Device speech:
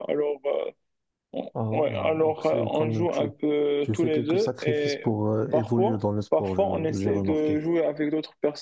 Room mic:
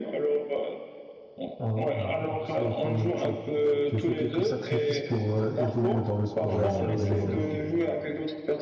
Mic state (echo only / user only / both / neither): both